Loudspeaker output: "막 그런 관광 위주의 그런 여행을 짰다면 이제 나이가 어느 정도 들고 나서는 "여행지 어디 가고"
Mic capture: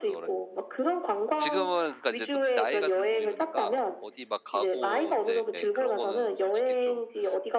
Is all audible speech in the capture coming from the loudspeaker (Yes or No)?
No